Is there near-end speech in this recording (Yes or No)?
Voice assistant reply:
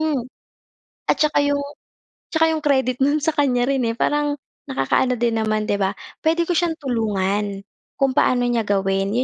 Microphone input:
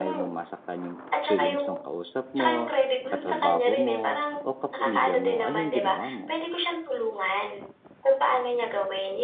Yes